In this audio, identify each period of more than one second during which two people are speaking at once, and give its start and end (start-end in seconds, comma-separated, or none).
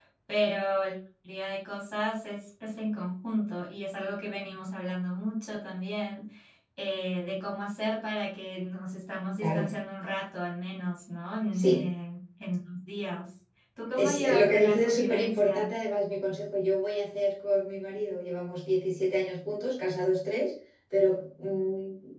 13.9-15.7